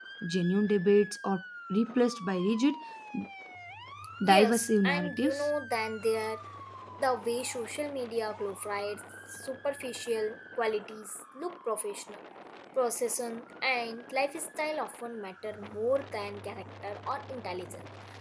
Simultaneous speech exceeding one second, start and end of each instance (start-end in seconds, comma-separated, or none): 4.2-5.5